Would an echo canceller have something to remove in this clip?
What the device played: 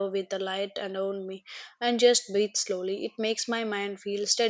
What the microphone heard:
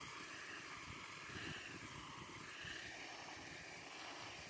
No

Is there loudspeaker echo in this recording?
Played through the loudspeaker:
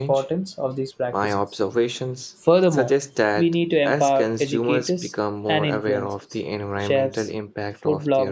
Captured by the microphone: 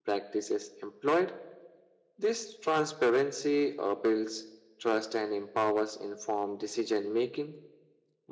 No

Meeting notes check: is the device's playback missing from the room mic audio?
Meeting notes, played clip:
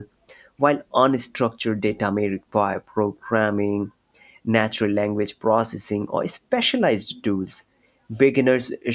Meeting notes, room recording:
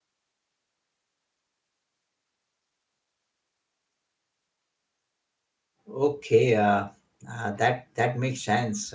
Yes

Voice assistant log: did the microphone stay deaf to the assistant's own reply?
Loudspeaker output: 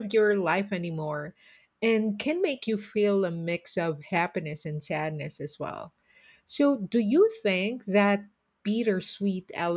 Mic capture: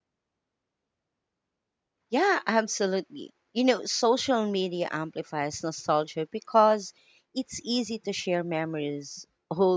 Yes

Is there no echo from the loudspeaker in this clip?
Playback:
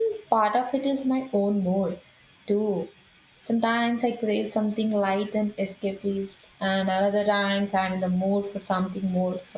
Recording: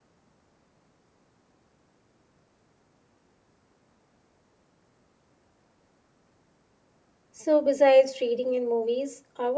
Yes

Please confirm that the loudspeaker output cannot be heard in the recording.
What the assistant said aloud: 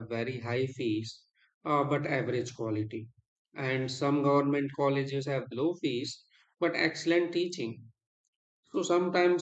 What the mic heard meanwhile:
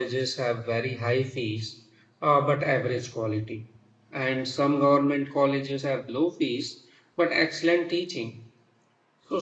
No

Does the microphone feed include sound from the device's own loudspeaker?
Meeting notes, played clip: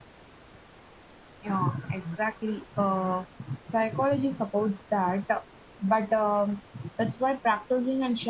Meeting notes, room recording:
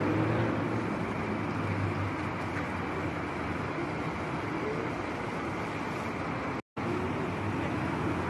No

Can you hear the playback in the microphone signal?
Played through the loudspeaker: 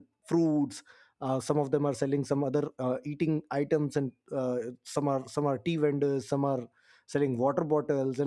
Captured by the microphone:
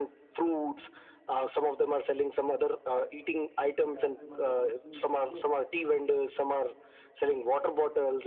Yes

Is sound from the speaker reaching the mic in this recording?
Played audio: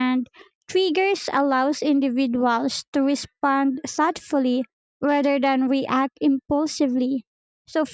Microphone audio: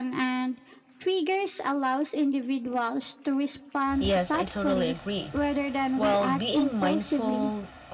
Yes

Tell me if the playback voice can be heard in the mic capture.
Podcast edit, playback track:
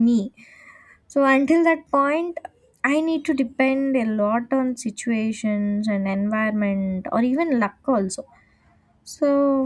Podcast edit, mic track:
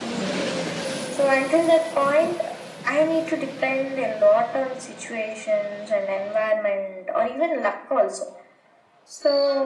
Yes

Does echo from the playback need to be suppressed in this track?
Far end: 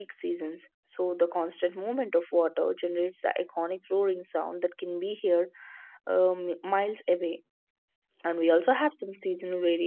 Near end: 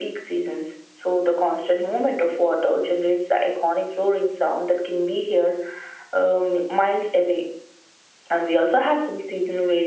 Yes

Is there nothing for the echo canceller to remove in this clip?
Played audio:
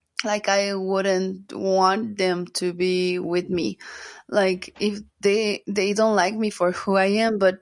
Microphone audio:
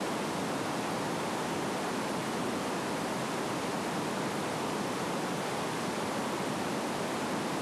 Yes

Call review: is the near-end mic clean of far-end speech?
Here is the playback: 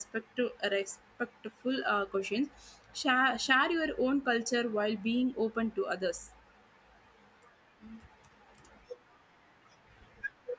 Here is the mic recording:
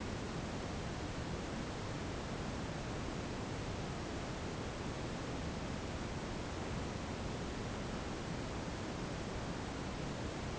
Yes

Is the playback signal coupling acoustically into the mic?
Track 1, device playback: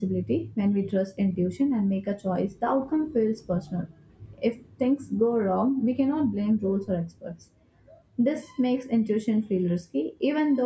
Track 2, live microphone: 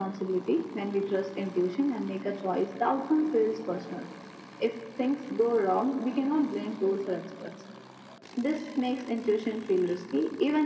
Yes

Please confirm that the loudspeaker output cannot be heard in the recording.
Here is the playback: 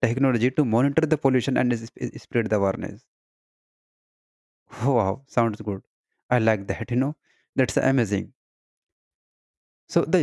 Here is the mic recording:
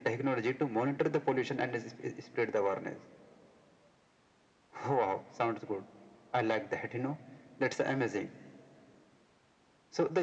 No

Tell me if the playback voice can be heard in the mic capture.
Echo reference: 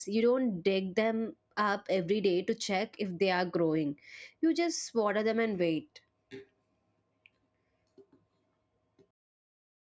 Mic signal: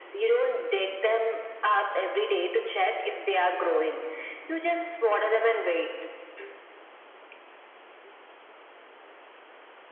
Yes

